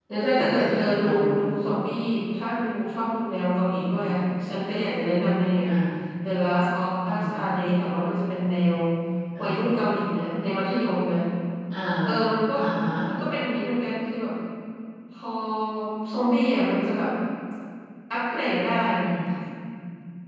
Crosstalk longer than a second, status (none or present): none